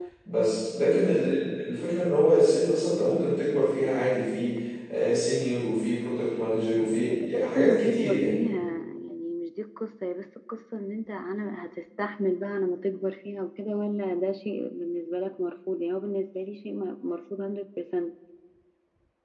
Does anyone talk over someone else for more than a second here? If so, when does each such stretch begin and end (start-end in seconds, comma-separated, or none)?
7.1-8.4